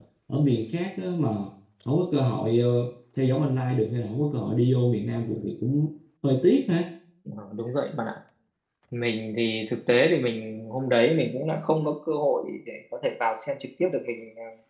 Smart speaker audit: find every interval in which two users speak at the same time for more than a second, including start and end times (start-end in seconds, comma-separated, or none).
none